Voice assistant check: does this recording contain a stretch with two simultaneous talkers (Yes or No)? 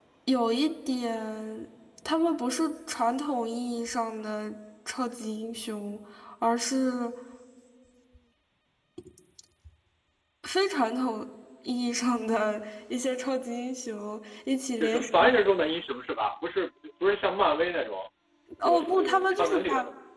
Yes